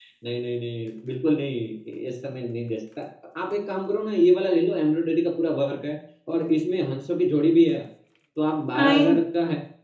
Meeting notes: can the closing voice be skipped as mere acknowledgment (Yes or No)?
Yes